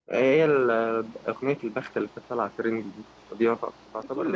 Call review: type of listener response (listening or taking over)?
taking over